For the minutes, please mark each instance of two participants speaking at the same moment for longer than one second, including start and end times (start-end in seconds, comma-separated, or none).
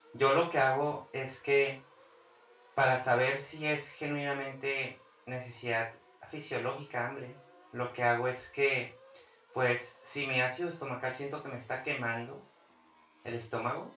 none